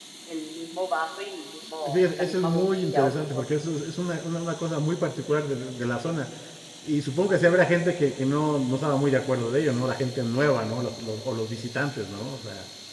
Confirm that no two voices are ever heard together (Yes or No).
No